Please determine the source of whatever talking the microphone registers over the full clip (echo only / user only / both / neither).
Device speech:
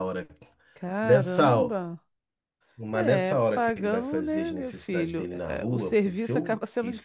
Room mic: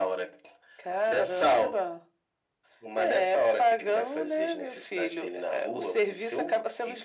echo only